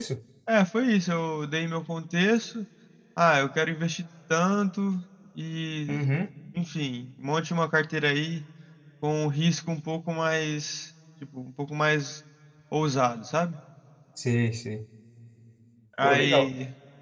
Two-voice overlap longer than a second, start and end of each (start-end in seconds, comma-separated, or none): none